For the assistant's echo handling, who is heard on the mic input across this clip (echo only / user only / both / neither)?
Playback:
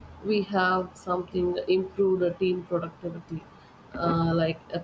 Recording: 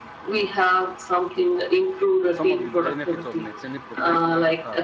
both